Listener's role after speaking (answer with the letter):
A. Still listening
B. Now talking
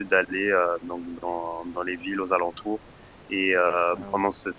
A